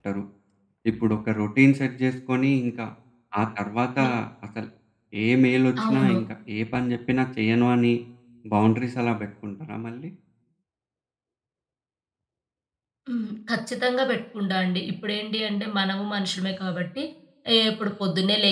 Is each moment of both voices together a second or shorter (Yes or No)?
Yes